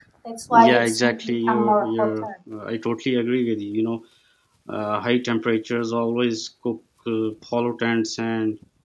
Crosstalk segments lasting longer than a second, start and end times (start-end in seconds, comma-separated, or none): 0.5-2.3